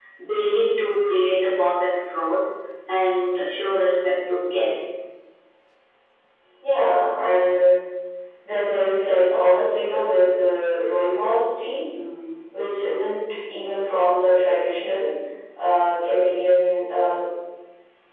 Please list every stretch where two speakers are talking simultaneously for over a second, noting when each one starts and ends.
none

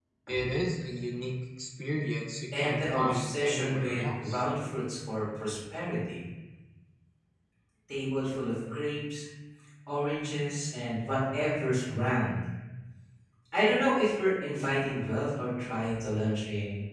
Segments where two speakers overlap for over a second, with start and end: 2.6-4.4

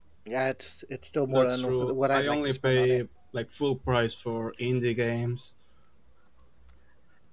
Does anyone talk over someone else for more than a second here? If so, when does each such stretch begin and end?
1.3-3.0

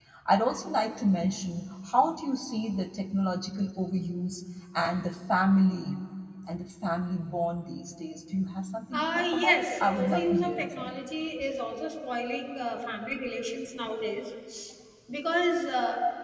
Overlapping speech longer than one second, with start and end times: 8.9-10.9

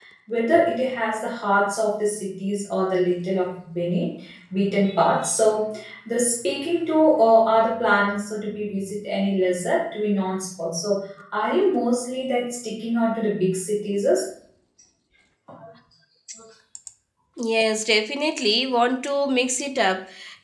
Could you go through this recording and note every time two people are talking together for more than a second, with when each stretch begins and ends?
none

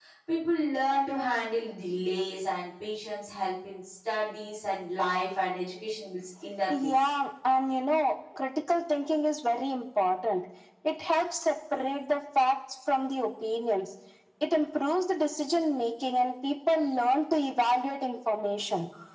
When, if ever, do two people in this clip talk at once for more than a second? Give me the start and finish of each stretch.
none

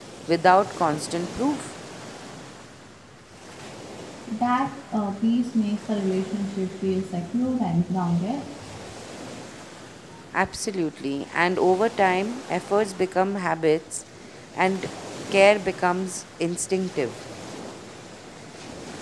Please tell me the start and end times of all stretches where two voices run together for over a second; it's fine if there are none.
none

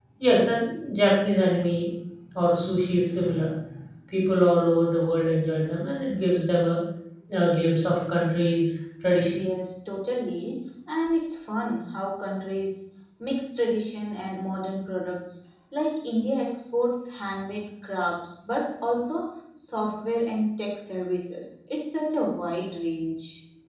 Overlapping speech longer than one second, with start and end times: none

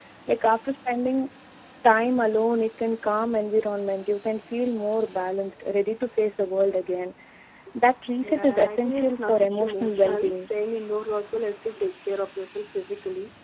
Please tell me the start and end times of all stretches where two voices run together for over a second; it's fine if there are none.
8.2-10.5

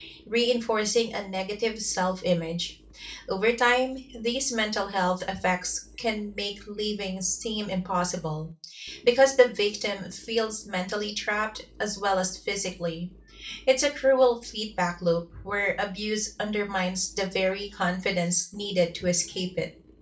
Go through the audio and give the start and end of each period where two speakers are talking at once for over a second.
none

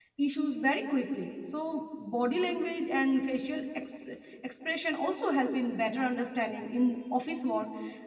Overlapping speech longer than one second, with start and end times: none

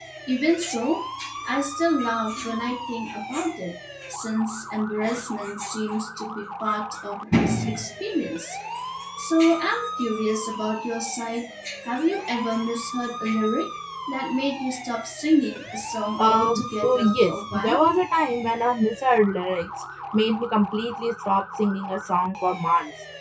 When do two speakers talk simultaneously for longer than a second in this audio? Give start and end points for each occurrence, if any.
16.2-17.8

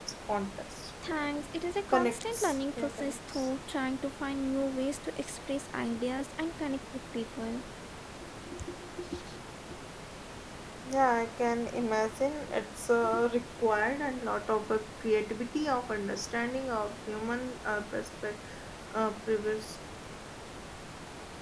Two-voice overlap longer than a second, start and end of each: 1.9-3.5

